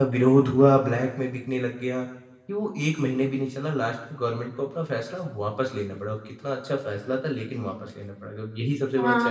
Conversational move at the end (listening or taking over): taking over